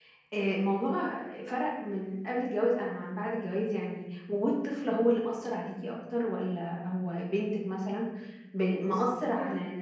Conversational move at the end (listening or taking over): listening